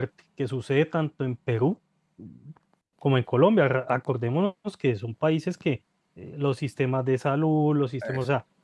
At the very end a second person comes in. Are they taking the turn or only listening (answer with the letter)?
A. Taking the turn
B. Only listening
B